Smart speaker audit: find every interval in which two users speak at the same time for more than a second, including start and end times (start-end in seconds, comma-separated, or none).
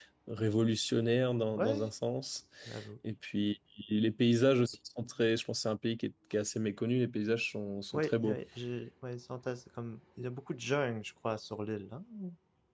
none